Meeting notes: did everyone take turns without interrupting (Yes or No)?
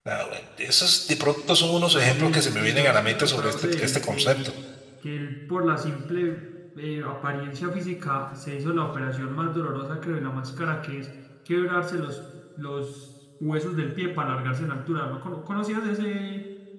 No